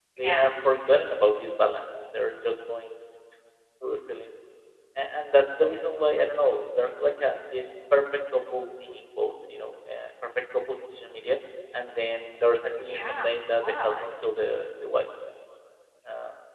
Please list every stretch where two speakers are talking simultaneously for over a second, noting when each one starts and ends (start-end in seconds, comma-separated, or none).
12.8-14.1